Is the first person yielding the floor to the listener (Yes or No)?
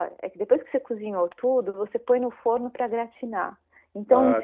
No